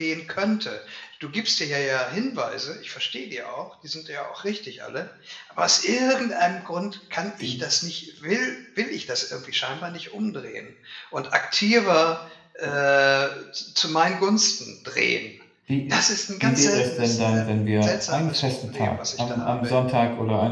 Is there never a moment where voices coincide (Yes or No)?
No